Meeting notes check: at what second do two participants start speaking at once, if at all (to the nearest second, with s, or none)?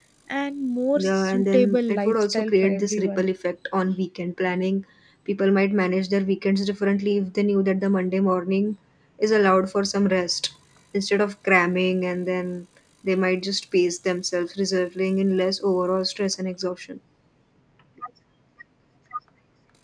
1 s